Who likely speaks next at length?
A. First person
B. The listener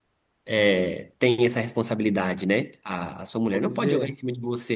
A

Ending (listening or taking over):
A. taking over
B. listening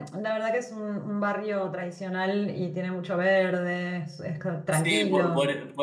A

